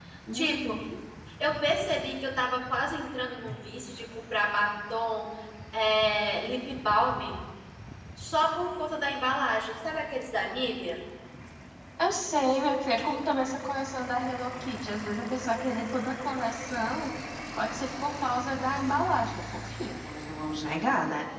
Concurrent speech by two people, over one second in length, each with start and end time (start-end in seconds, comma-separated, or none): none